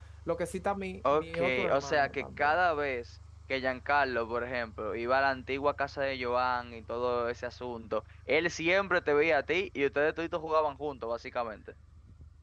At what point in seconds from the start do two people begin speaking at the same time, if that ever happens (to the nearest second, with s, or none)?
1 s